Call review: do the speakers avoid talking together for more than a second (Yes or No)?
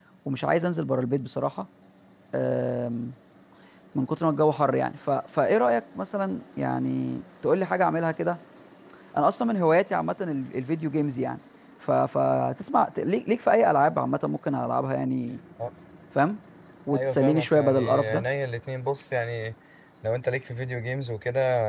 No